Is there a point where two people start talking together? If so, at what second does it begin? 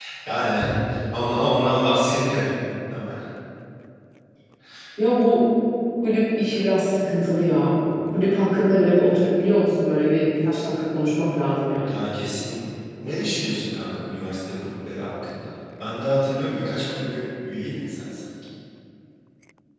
none

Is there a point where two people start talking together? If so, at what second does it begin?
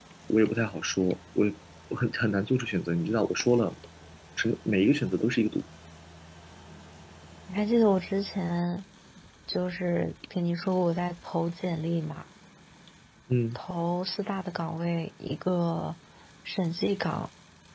none

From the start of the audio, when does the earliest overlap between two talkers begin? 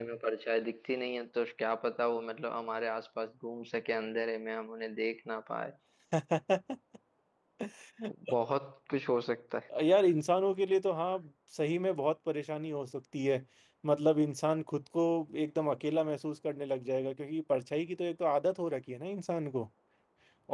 none

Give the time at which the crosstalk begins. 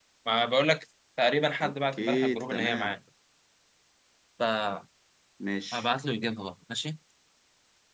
2 s

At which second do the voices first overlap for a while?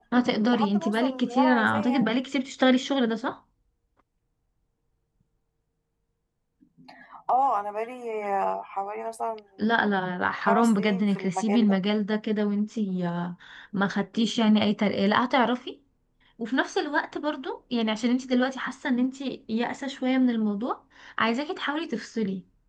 1 s

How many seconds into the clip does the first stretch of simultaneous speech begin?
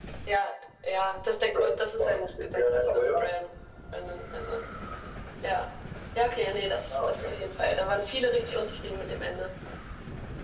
1 s

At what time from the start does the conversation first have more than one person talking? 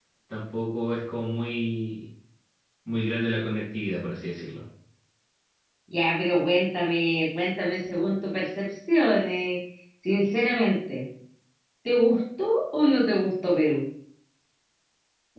none

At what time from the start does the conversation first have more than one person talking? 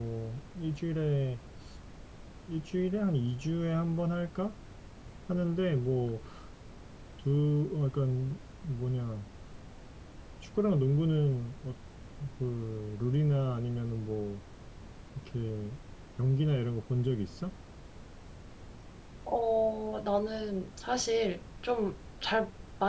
none

